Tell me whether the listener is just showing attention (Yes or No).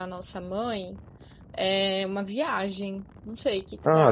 No